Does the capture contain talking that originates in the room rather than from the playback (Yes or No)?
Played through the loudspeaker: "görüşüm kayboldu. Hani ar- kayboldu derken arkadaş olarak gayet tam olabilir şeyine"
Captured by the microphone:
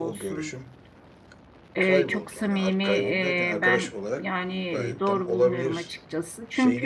Yes